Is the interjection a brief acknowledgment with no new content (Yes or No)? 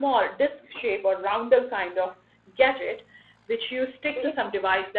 Yes